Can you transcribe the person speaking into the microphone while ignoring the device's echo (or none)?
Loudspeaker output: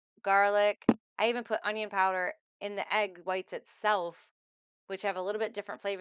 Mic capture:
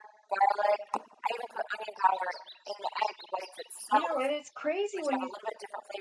You know, and it's crazy when you